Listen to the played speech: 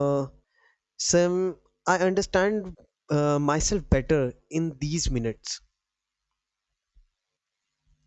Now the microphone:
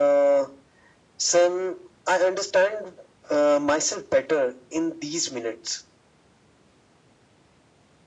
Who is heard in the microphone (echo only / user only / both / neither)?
echo only